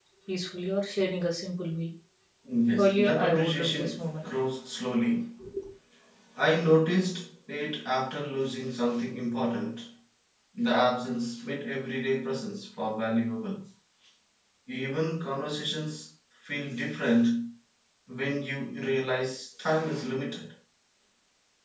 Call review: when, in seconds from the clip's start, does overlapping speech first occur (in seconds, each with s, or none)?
2.8 s